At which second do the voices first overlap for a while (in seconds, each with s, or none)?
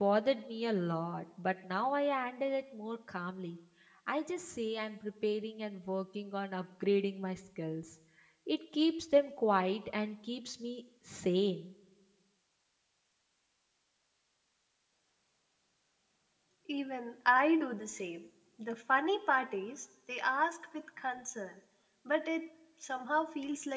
none